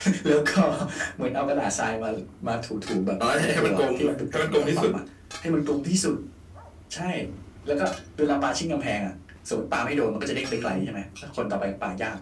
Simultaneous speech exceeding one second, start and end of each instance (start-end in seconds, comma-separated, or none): 3.4-4.9